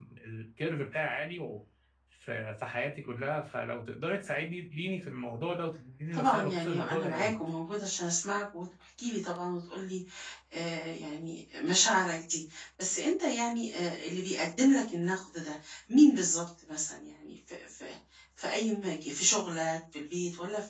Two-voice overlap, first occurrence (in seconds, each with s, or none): 6.1 s